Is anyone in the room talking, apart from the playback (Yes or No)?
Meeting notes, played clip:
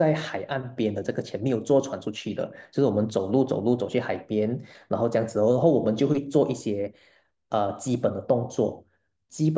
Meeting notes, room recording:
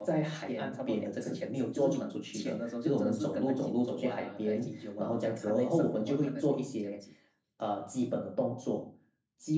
Yes